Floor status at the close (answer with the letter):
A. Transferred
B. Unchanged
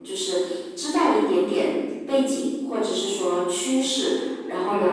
B